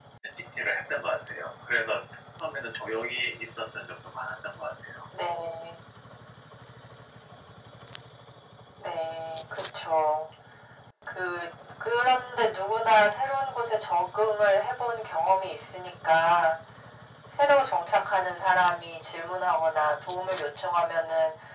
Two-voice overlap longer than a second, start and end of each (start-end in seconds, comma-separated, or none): none